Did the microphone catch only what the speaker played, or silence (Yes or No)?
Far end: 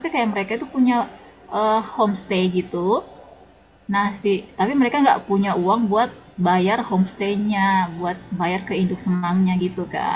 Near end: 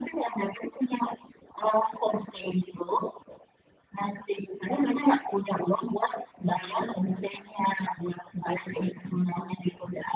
Yes